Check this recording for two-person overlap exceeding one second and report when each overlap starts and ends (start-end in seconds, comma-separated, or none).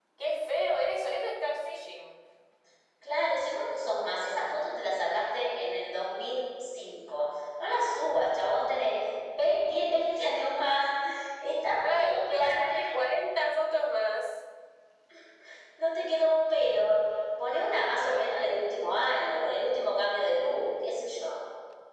11.7-13.1